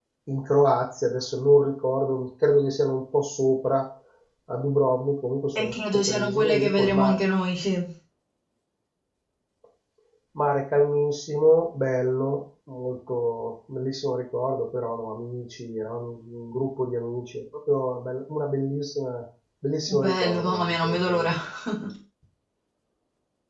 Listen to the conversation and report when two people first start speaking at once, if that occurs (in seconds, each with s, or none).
5.6 s